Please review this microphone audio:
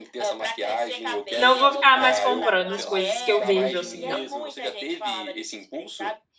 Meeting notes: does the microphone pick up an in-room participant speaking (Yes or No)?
Yes